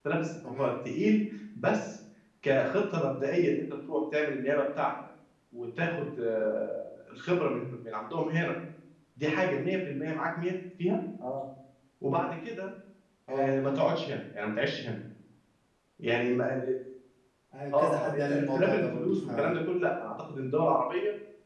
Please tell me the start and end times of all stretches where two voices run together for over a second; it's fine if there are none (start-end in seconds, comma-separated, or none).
17.7-19.5